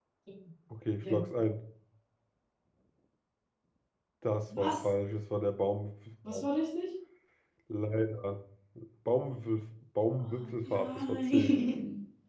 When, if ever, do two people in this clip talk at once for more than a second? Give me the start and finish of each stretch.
10.2-11.6

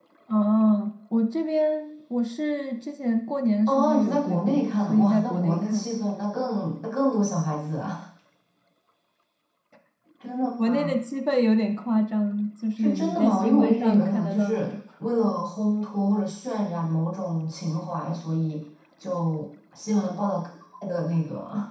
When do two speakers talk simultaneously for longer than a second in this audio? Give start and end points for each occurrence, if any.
3.7-5.9, 12.8-14.7

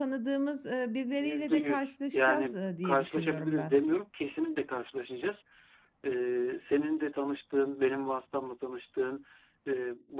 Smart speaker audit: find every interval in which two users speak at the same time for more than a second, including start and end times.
1.1-3.7

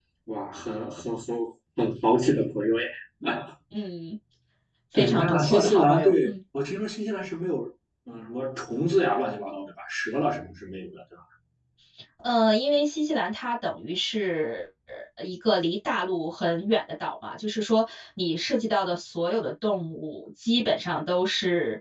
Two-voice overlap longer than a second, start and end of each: 5.0-6.3

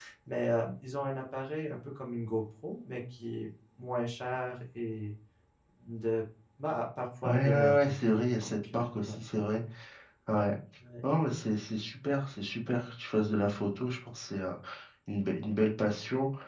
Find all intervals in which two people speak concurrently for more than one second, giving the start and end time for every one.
7.2-9.1

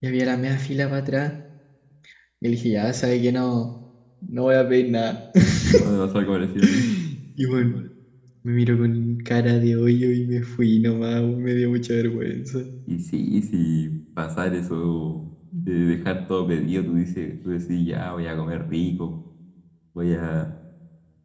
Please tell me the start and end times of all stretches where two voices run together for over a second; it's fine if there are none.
none

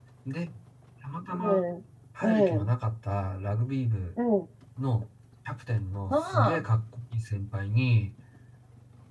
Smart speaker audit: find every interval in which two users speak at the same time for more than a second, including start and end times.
none

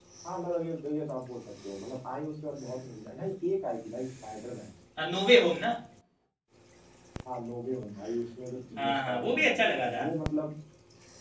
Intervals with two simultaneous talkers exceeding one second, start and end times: 8.8-10.0

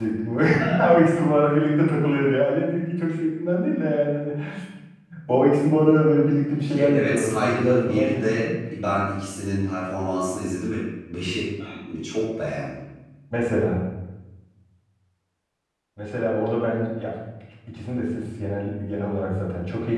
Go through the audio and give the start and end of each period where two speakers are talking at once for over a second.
6.7-8.5

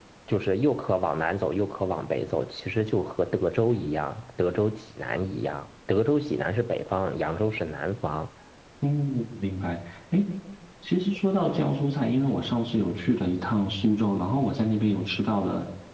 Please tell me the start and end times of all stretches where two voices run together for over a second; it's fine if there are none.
none

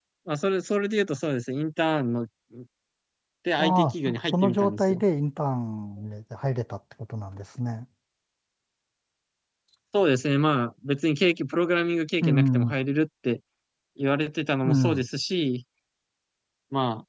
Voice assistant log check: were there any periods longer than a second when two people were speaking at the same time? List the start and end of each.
3.6-5.0

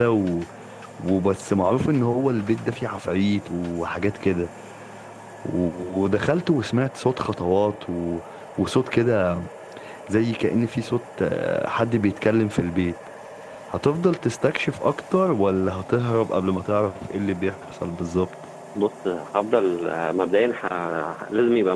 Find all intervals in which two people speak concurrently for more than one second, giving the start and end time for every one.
none

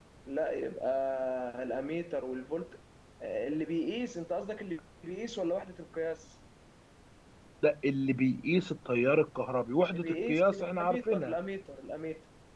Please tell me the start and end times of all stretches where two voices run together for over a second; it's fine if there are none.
9.9-11.3

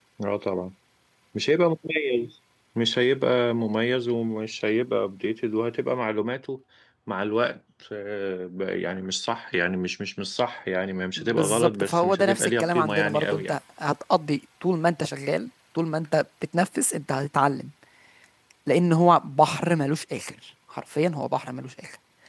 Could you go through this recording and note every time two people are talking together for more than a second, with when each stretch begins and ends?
11.2-13.6

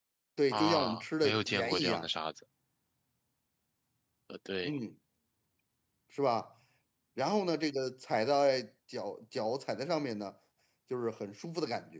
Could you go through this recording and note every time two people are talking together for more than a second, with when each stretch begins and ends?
0.5-2.0

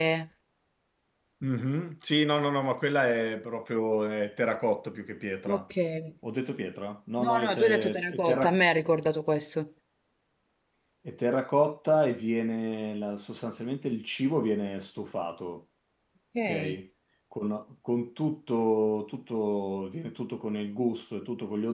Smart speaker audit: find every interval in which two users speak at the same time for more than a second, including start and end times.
7.2-8.6

